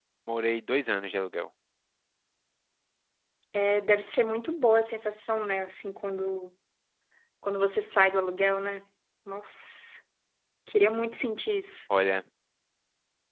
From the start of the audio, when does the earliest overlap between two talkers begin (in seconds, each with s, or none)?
none